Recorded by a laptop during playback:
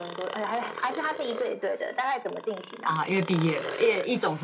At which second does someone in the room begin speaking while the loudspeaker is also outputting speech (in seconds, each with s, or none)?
2.8 s